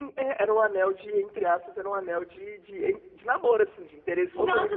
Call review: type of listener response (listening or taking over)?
taking over